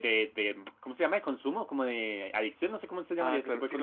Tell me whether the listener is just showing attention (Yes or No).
No